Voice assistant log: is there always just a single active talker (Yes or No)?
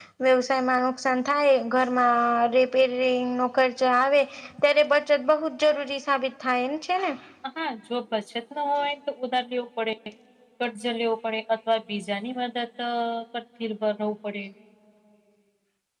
Yes